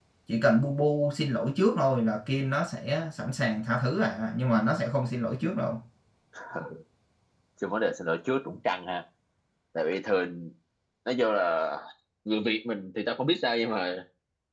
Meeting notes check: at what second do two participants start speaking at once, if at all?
none

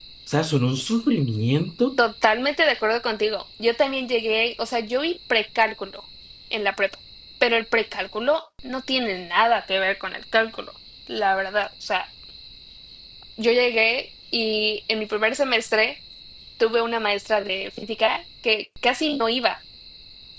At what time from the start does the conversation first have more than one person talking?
none

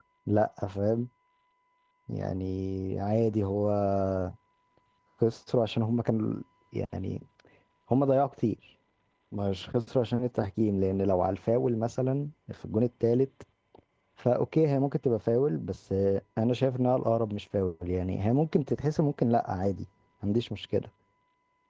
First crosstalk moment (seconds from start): none

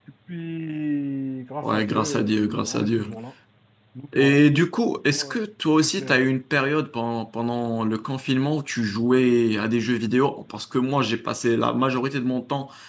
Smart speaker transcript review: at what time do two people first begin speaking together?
1.6 s

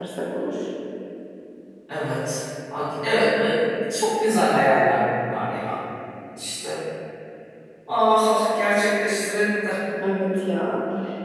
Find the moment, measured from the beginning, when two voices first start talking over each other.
none

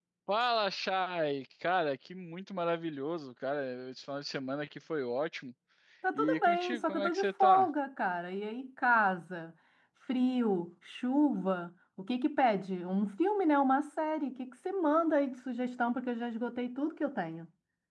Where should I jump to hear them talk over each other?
6.2 s

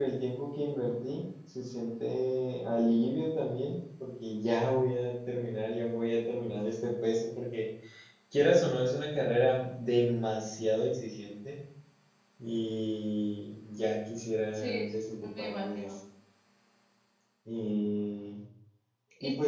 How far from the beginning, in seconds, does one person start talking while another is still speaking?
14.5 s

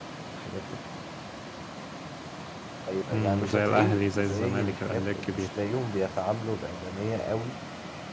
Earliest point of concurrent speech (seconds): 3.1 s

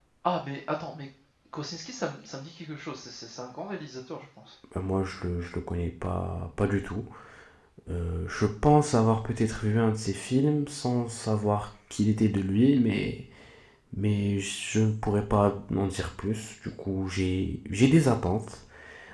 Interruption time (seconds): none

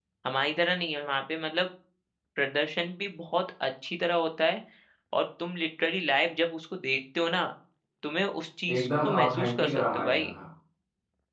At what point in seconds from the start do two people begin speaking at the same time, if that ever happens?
8.8 s

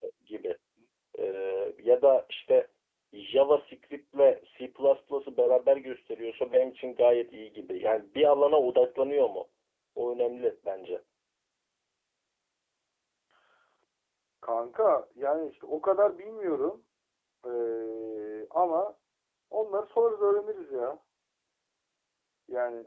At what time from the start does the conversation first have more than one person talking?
none

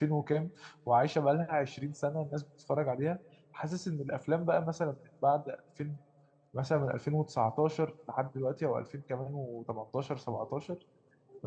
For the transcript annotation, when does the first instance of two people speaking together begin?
none

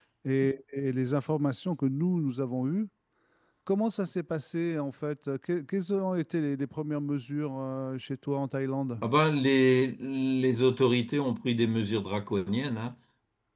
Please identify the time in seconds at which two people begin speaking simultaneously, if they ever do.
none

